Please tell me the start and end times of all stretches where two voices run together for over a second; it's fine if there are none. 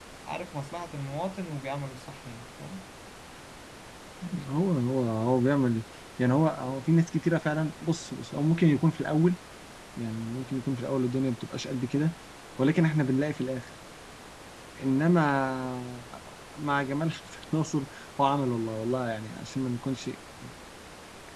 none

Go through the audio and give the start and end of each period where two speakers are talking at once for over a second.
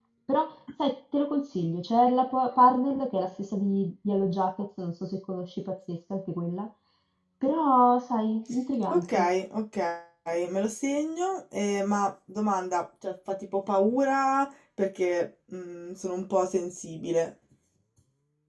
none

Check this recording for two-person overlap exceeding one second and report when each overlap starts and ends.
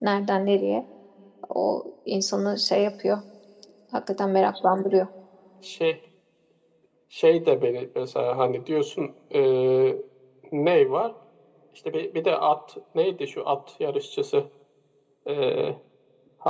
none

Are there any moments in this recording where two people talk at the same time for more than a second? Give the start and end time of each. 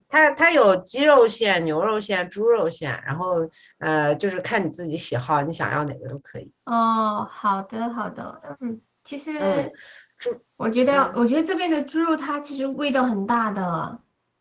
none

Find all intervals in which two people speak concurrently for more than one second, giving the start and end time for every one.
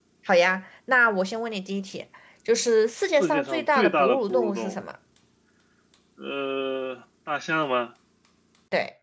3.2-4.9

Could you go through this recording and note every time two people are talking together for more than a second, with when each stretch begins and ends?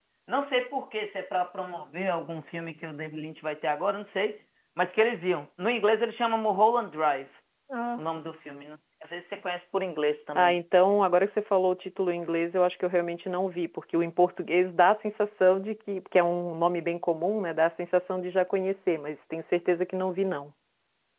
none

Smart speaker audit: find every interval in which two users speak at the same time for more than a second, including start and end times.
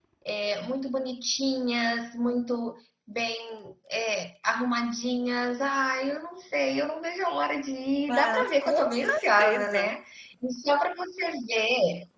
8.1-9.9

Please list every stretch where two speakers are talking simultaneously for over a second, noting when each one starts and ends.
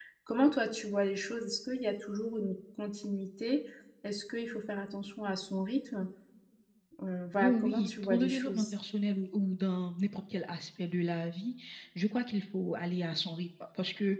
7.4-8.7

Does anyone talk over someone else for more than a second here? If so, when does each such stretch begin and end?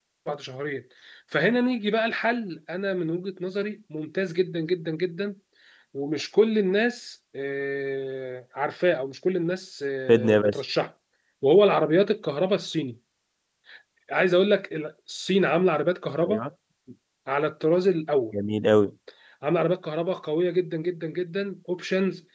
none

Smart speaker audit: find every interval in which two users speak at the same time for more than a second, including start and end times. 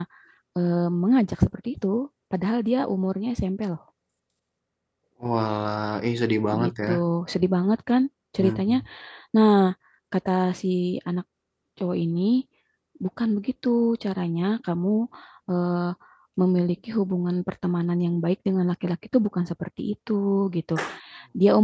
none

